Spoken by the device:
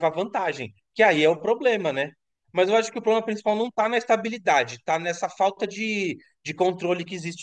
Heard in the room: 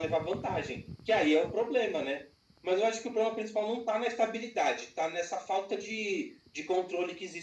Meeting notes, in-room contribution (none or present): none